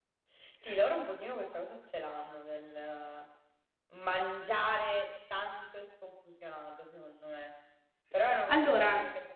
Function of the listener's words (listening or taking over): listening